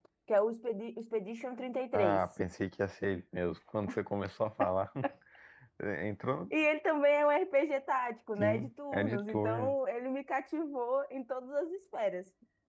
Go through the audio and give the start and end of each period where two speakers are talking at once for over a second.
8.4-9.8

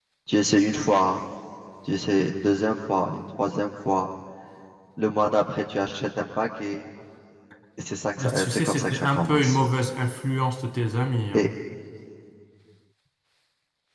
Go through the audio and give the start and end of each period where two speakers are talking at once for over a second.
8.3-9.6

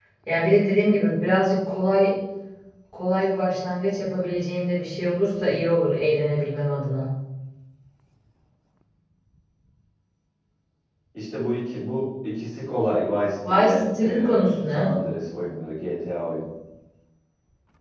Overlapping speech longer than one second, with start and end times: 13.4-14.9

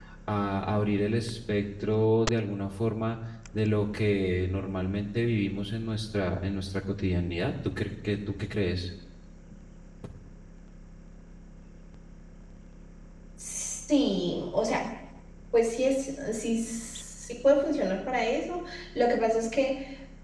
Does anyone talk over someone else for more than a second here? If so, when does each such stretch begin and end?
none

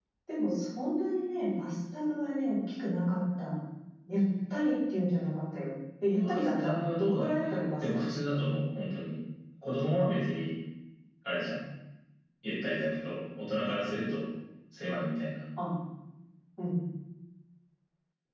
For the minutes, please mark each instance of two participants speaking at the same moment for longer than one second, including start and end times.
6.2-8.1

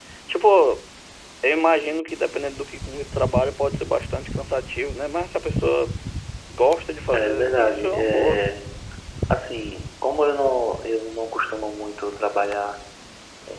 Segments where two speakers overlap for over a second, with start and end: 7.1-8.4

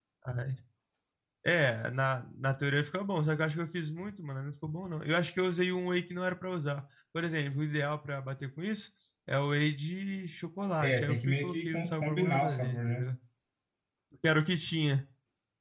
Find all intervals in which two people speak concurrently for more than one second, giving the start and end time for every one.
10.8-13.0

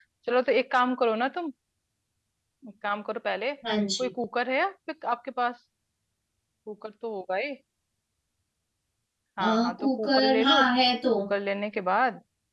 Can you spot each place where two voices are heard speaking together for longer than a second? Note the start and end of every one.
9.4-10.6

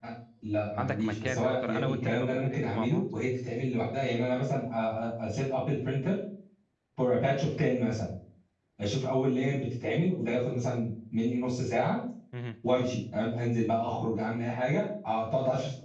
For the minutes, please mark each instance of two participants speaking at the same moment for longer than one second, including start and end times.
0.8-3.0

